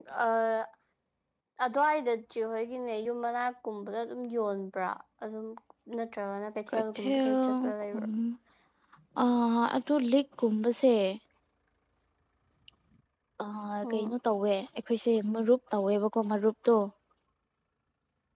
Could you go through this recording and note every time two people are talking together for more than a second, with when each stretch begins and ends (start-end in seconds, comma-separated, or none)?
6.7-8.1